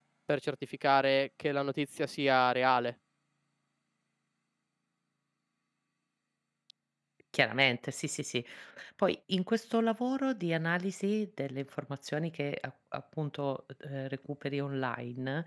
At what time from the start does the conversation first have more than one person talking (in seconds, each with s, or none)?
none